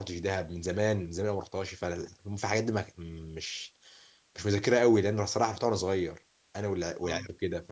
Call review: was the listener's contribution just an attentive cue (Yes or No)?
Yes